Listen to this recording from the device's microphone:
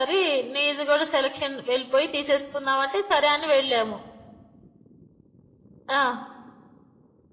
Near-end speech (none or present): none